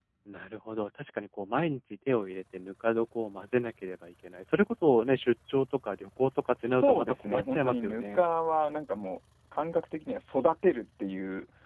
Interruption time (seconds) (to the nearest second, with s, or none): 7 s